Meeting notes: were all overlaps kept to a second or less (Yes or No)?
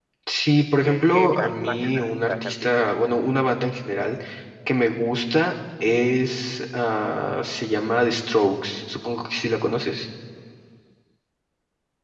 No